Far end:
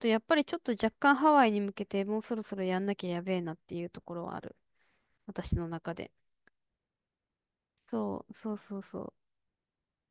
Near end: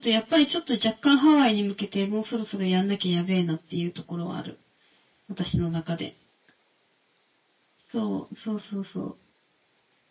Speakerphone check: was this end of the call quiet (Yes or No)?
Yes